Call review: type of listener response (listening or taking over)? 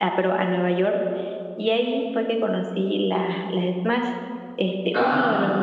listening